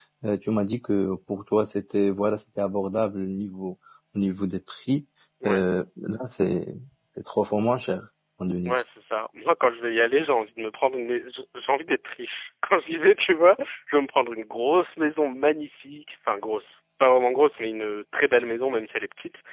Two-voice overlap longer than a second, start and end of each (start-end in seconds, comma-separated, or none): none